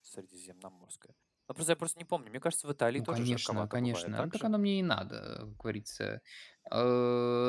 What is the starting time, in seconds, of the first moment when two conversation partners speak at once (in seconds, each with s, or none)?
3.0 s